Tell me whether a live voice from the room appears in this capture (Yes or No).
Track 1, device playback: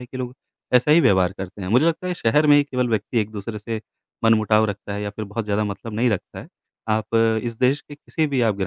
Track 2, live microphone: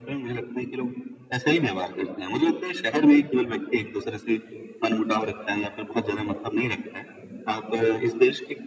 No